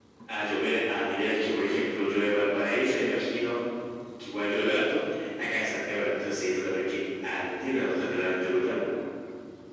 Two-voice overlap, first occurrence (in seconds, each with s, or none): none